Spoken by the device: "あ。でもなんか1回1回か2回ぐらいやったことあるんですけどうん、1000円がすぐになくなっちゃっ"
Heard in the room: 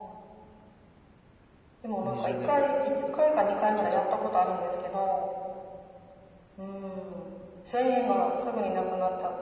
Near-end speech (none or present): present